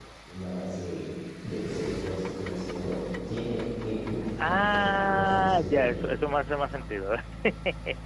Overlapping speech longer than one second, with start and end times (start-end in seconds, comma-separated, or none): 4.4-5.7